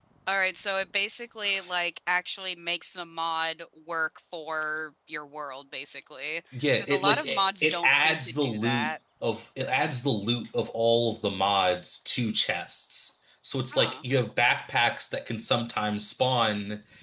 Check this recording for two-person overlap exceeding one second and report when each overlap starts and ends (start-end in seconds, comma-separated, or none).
6.8-8.9